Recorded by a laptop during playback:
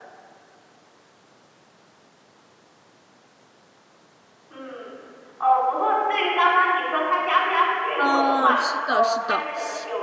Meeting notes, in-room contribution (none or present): present